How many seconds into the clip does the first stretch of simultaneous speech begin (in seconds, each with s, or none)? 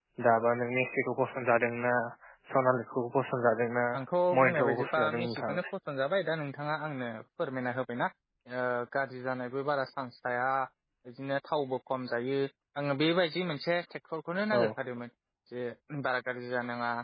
4.4 s